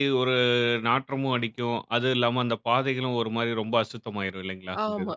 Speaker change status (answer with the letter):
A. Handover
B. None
A